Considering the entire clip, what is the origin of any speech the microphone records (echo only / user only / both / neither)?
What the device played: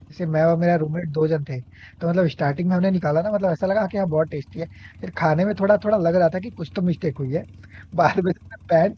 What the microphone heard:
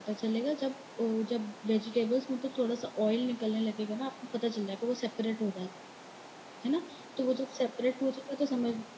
user only